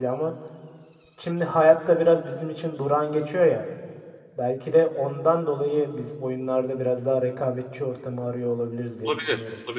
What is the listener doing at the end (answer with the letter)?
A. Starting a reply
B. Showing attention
A